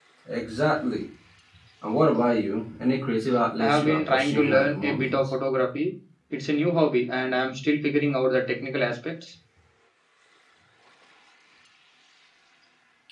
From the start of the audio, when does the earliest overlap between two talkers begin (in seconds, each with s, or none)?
3.6 s